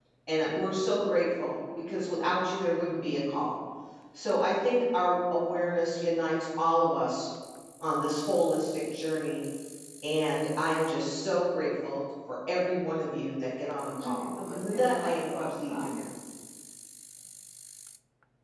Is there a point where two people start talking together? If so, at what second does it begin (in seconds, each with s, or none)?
14.0 s